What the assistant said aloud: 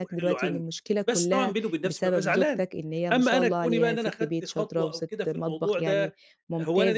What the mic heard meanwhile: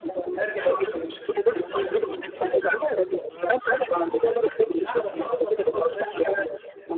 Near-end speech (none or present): present